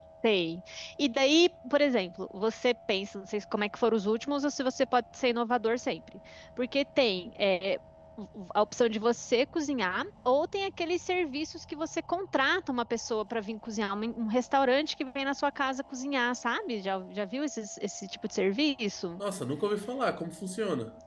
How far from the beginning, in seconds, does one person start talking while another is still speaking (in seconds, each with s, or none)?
none